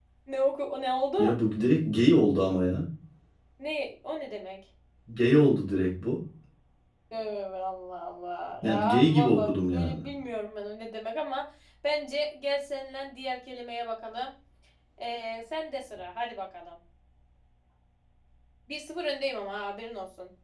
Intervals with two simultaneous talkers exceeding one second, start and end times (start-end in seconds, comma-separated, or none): 8.6-10.0